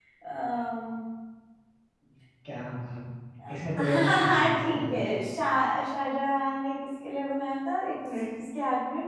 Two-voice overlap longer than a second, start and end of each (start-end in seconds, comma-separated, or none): 3.8-5.0